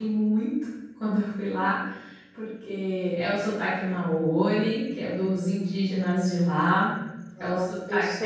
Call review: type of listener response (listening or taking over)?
taking over